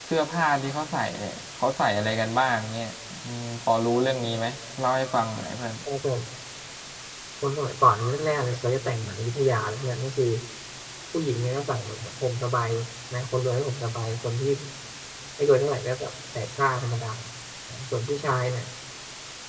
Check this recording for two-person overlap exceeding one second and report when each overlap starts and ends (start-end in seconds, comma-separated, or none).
none